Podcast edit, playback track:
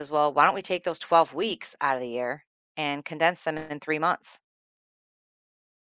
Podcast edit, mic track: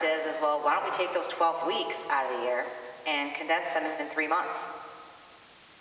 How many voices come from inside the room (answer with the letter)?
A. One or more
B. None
B